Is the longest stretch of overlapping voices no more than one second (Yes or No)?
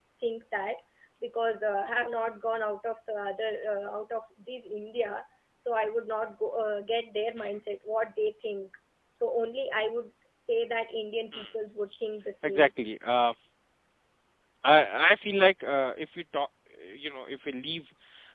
Yes